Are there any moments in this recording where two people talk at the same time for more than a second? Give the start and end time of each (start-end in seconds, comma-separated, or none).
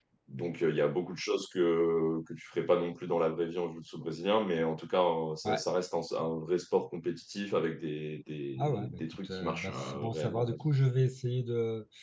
8.6-10.6